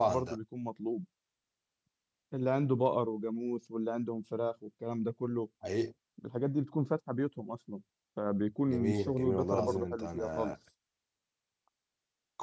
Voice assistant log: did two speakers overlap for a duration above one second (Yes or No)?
Yes